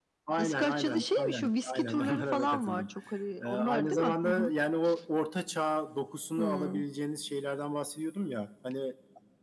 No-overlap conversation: No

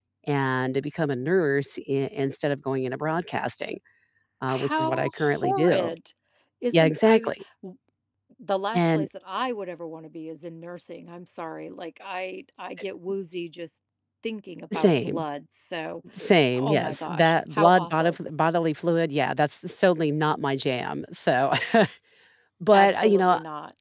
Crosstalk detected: Yes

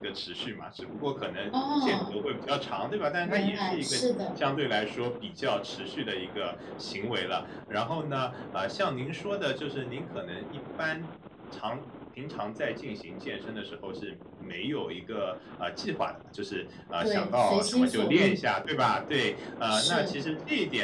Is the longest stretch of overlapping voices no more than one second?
No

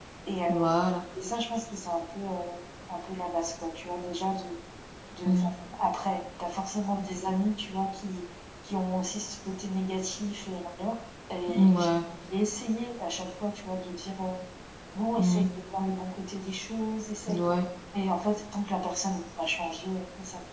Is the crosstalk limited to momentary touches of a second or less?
Yes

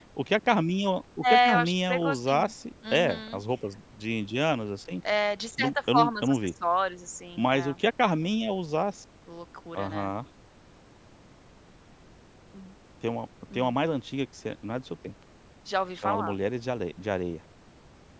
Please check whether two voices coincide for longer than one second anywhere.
Yes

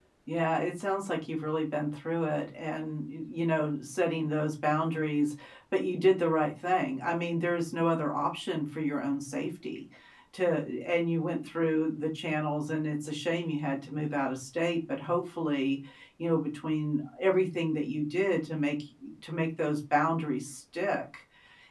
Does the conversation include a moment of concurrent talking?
No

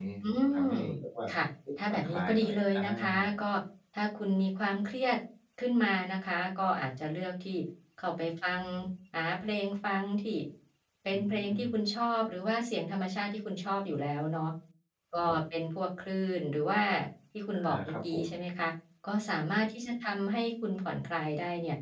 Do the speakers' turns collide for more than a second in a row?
Yes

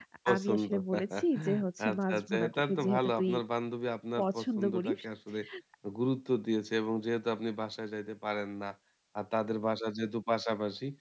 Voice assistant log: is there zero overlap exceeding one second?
No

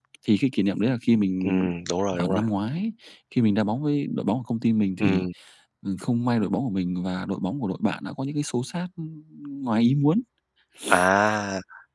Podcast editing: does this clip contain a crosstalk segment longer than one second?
No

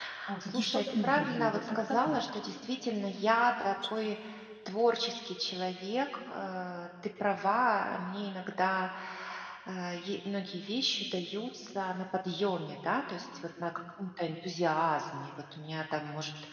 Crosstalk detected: Yes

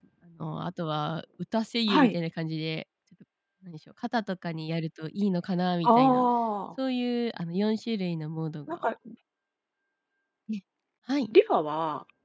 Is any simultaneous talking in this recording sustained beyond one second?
No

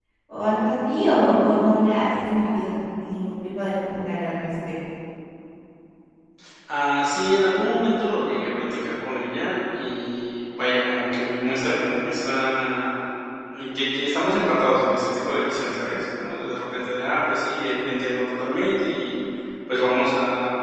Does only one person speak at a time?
Yes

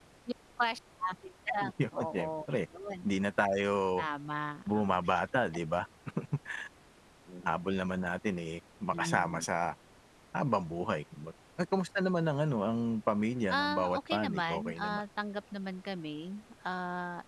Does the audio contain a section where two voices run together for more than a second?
Yes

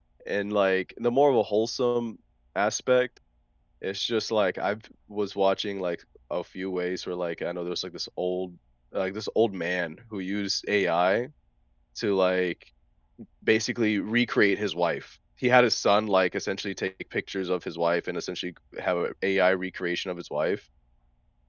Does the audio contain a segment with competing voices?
No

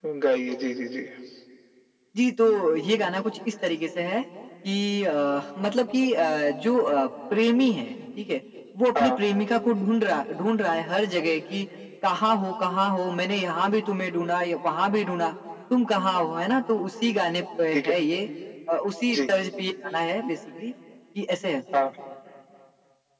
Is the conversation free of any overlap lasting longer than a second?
Yes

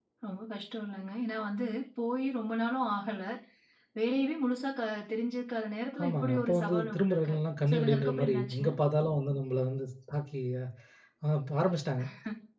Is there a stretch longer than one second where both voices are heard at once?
Yes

